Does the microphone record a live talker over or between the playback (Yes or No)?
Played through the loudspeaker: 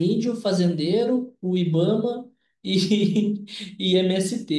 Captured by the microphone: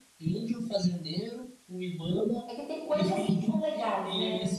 Yes